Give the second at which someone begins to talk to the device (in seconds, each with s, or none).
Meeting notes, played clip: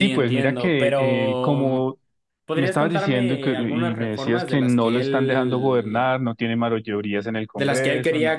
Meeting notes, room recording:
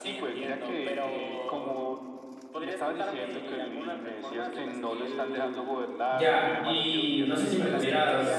6.1 s